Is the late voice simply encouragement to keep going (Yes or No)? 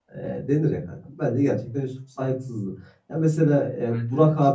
Yes